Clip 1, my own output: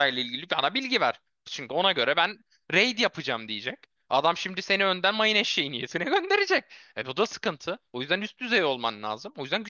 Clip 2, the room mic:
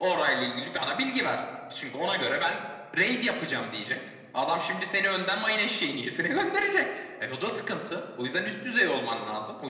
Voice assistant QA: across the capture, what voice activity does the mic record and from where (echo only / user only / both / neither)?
echo only